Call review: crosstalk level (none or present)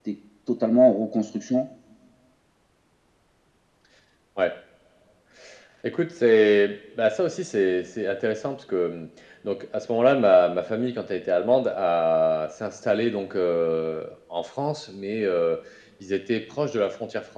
none